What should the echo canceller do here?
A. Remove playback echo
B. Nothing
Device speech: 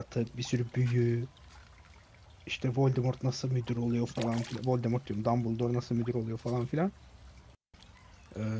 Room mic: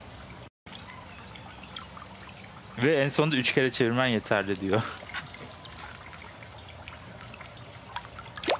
B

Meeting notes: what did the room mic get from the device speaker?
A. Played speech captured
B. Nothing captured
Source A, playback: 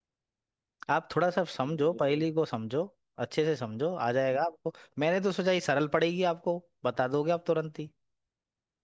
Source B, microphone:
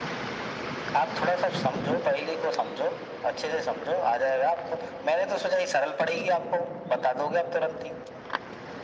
A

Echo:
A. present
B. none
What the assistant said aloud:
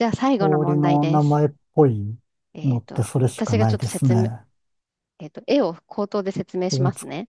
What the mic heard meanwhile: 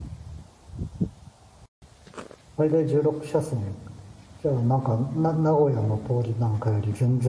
B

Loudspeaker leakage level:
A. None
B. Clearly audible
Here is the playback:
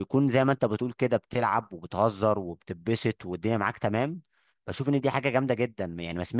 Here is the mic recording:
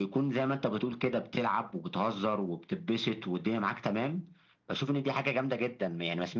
B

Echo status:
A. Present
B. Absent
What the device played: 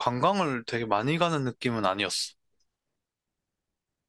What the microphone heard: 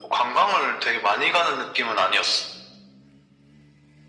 A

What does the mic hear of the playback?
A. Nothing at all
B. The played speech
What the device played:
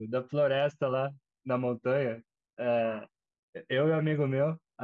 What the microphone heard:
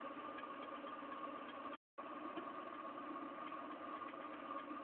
A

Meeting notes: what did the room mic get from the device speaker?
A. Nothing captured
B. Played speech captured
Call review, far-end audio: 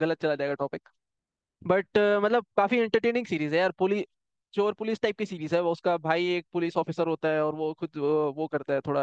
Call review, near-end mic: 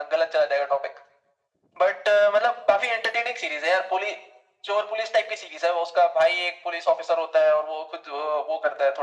B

